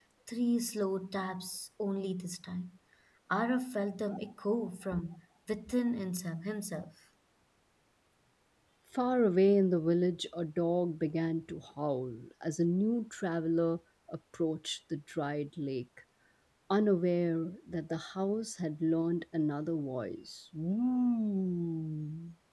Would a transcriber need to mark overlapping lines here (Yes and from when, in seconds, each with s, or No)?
No